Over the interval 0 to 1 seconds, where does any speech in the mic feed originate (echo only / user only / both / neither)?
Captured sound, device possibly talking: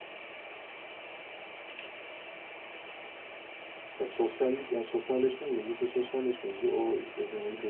neither